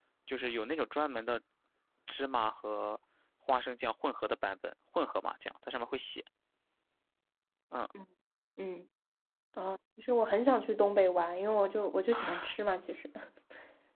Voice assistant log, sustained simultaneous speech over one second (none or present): none